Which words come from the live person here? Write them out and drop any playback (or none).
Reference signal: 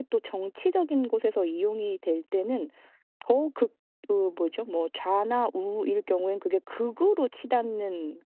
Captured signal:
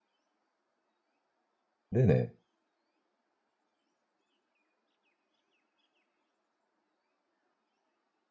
네네.